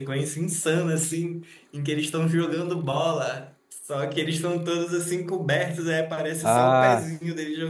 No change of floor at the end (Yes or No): Yes